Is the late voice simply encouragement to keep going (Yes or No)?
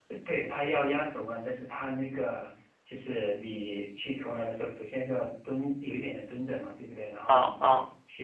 Yes